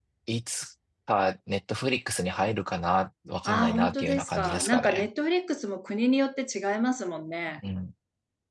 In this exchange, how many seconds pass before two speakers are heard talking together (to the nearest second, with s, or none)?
3 s